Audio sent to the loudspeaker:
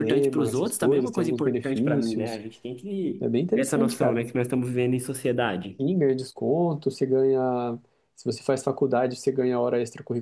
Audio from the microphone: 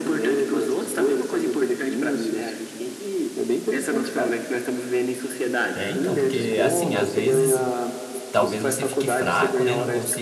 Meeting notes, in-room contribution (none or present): present